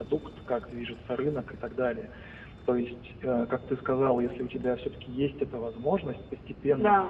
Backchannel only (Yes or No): Yes